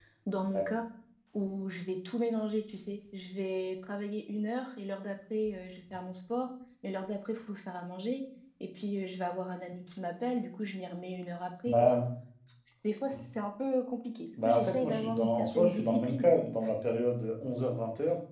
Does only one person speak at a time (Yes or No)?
No